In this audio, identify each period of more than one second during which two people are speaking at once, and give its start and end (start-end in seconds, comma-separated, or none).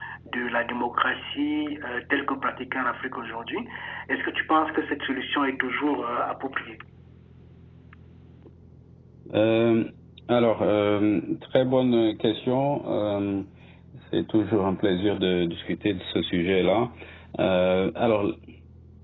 none